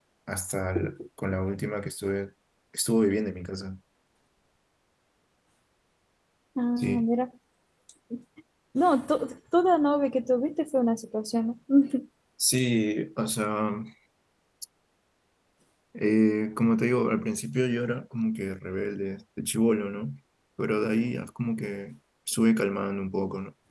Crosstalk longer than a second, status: none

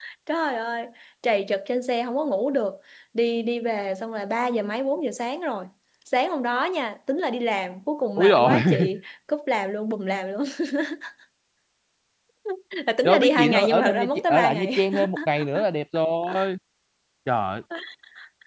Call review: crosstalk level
present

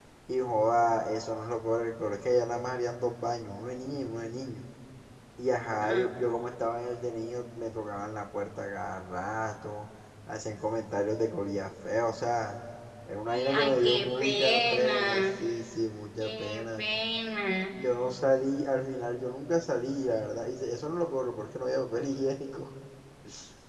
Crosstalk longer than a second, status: present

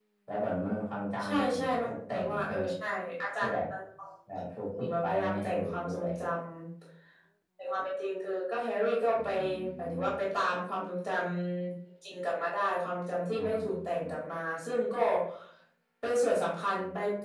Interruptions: present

